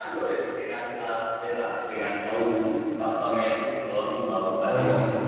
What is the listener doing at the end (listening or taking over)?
taking over